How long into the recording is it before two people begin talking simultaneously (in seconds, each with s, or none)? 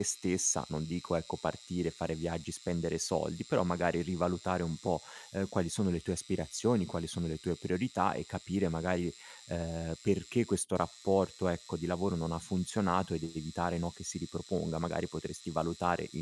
none